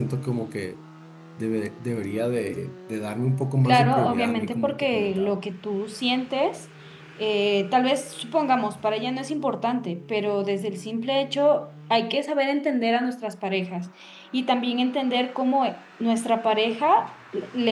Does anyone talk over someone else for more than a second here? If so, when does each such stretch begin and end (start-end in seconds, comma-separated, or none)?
3.6-5.3